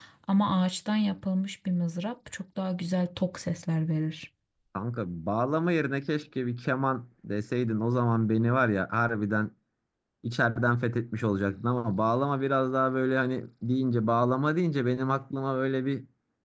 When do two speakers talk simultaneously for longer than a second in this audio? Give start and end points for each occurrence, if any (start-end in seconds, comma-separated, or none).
none